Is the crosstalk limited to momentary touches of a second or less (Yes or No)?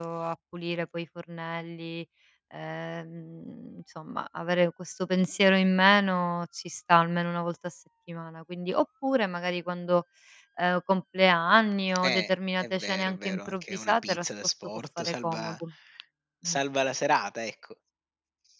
No